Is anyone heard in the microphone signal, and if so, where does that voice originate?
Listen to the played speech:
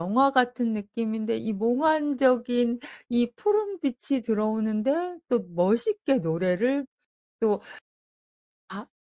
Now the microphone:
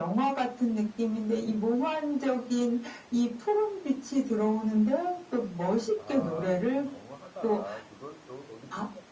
both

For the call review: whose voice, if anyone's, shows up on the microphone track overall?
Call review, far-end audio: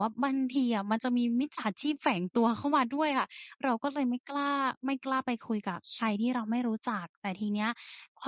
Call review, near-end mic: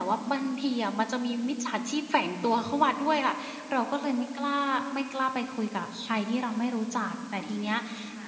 both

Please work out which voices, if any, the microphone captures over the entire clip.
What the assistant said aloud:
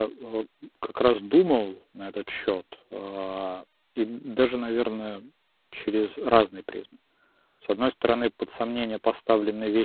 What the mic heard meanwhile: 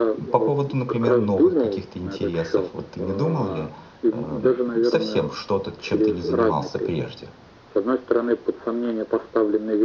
both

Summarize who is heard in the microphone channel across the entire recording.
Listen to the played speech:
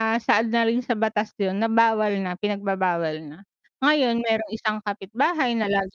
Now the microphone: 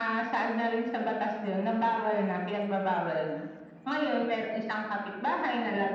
echo only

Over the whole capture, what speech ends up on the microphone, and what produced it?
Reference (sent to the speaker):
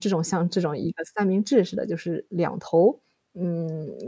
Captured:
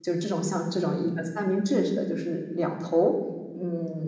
echo only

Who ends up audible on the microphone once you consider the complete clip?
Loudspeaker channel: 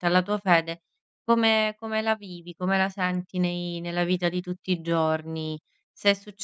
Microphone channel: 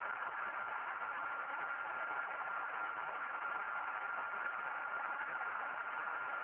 neither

